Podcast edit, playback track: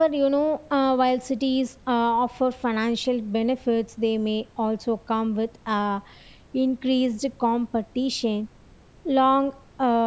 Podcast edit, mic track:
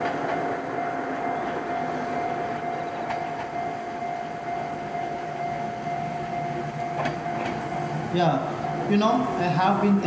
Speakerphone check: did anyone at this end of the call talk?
Yes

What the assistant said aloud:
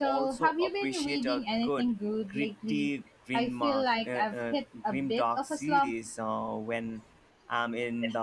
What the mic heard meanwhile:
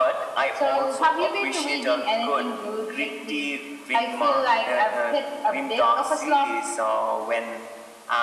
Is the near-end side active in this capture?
No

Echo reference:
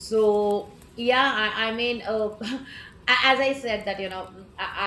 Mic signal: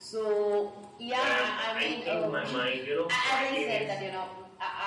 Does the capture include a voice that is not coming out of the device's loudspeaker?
Yes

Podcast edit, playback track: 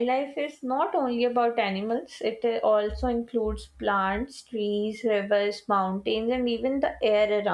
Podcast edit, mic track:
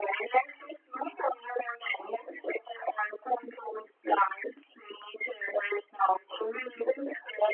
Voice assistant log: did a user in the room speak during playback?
No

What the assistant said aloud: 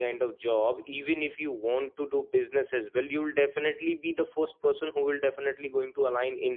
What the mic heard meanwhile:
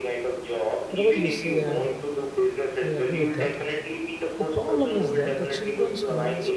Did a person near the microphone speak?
Yes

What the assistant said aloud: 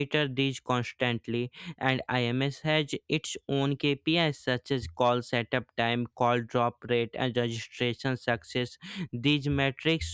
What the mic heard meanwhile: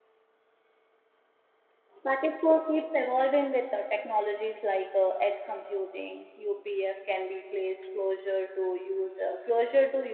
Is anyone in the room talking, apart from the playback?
Yes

